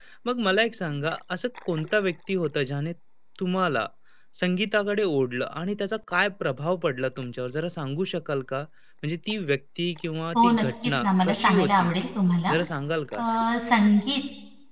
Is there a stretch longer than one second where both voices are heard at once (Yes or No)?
Yes